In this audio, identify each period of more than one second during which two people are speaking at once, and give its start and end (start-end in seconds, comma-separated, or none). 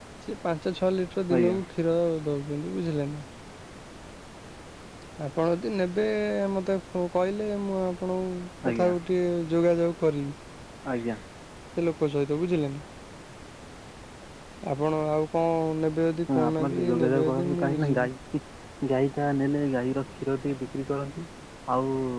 16.4-18.1